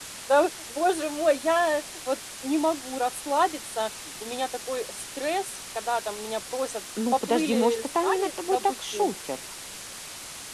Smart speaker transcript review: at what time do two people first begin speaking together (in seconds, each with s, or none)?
7.0 s